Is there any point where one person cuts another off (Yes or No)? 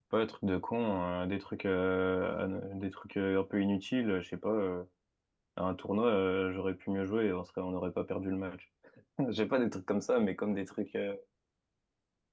No